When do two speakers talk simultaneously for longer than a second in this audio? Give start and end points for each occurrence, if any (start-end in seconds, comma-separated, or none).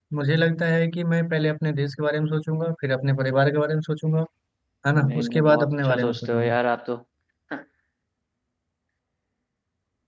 5.0-6.6